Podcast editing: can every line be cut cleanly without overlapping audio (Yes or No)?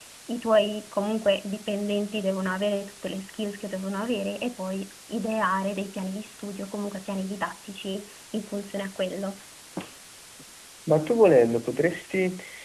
Yes